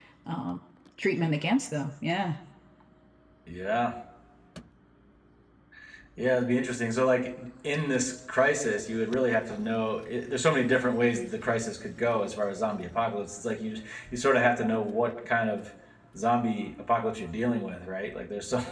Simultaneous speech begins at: none

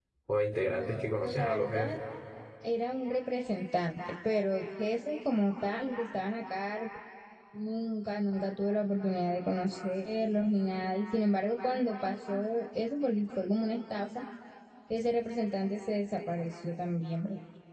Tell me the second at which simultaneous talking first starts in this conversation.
0.7 s

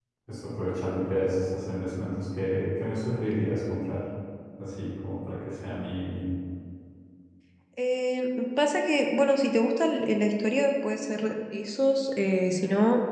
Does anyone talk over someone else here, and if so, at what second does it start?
none

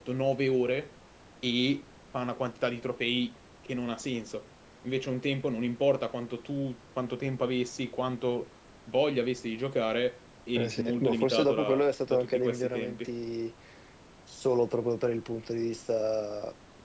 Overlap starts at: 10.6 s

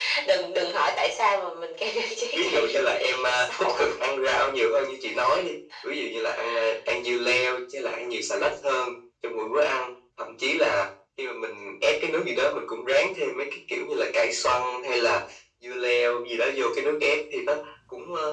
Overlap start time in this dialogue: 2.3 s

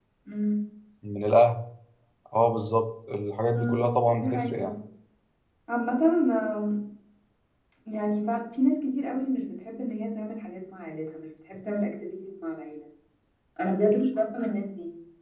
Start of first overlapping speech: 3.5 s

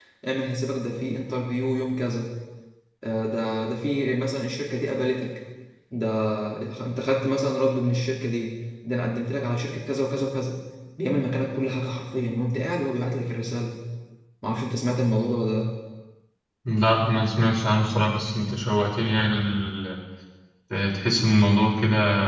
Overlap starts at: none

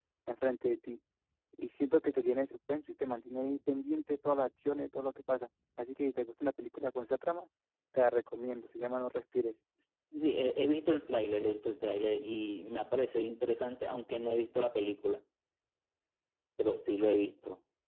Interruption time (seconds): none

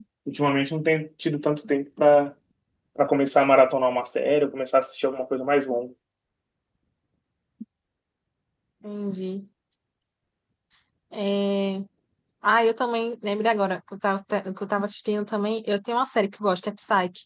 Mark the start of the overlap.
none

